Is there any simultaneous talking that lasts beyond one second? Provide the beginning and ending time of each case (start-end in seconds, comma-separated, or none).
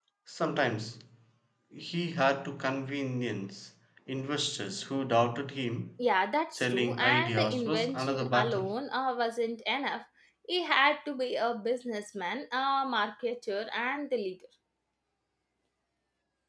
6.5-8.7